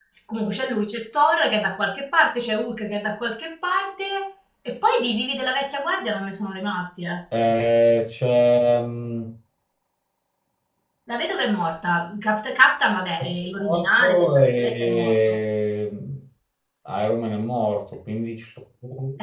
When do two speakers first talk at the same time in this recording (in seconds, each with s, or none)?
13.6 s